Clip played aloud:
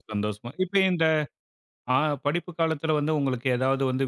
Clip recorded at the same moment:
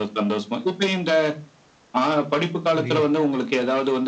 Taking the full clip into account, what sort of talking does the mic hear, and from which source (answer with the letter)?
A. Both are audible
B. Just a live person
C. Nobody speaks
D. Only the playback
A